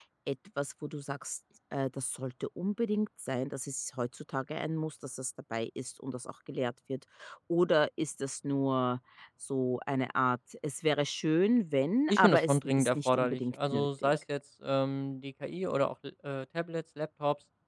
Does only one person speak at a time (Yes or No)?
No